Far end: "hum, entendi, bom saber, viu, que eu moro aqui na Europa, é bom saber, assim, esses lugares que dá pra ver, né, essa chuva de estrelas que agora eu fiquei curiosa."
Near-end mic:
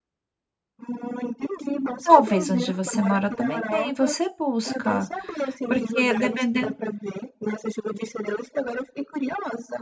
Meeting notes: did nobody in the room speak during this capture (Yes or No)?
No